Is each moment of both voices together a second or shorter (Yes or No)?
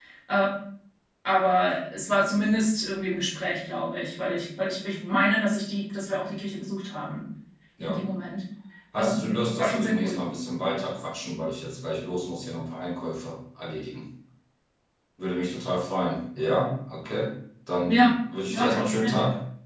No